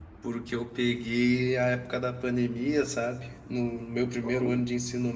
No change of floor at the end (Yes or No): Yes